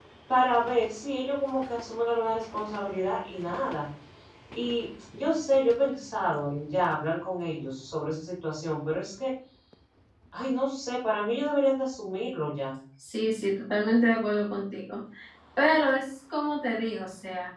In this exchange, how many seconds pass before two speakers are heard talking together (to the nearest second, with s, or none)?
none